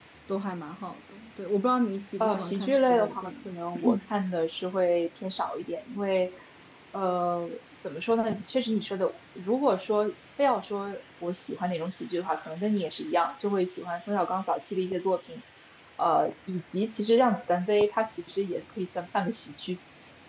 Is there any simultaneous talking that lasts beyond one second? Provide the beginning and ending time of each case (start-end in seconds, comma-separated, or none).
2.2-3.5